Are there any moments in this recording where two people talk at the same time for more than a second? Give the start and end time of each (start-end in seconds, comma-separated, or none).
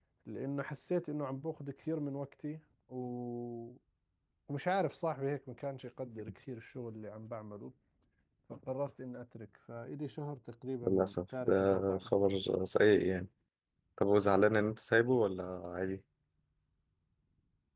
10.9-12.1